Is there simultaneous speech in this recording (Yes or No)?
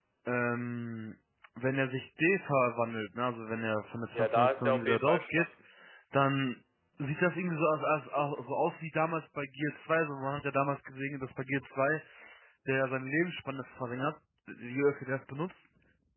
Yes